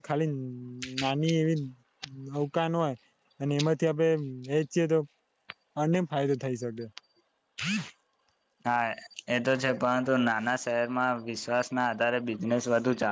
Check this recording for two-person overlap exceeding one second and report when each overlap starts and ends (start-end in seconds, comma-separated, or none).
none